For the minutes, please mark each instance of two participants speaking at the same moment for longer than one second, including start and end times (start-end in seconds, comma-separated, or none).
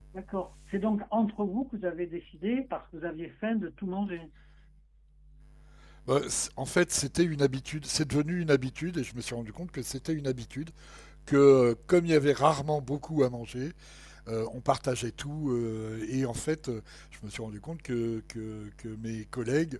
none